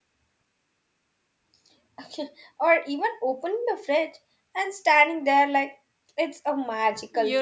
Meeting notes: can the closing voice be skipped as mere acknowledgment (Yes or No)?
No